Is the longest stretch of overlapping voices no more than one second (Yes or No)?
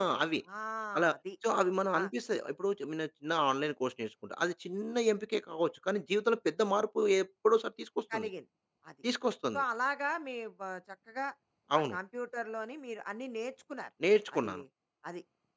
Yes